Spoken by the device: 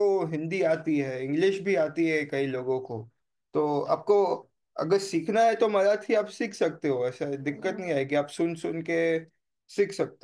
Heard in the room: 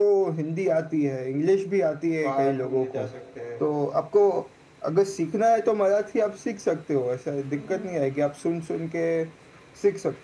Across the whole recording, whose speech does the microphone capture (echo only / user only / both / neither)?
both